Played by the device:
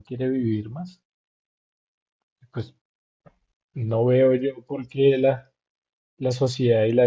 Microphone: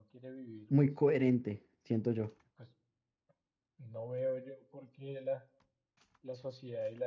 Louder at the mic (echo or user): user